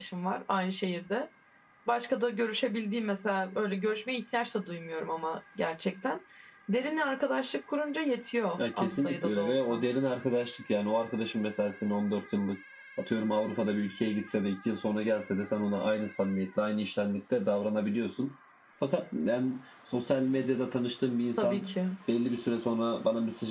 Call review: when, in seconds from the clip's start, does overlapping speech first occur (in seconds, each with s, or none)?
8.6 s